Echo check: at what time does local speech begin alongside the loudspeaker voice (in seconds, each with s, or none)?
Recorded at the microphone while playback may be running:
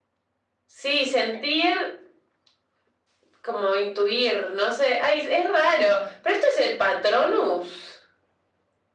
none